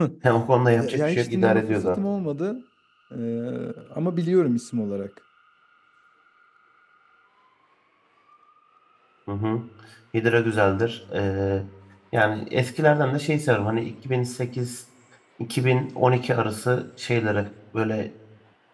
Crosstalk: present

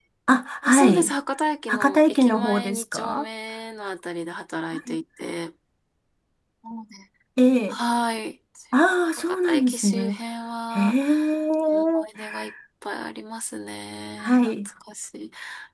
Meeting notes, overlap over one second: present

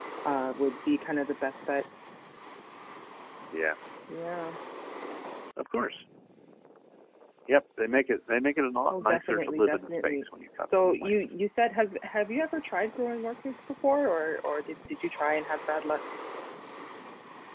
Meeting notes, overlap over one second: present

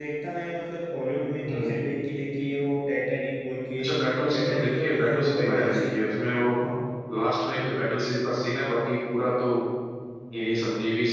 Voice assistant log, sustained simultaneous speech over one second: present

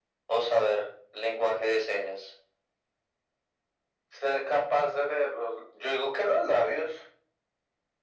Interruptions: none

